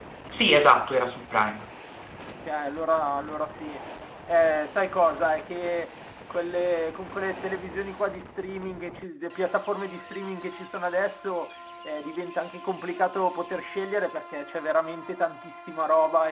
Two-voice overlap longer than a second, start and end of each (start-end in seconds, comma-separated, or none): none